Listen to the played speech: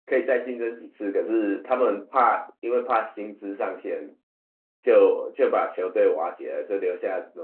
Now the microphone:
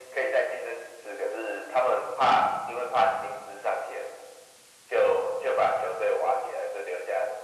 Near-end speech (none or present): none